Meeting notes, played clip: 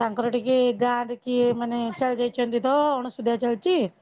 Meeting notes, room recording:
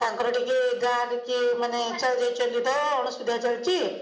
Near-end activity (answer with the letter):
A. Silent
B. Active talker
A